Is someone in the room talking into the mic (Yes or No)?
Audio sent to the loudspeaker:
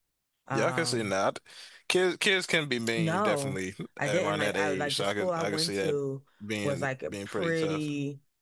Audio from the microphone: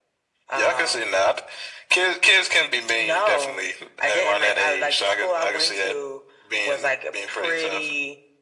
No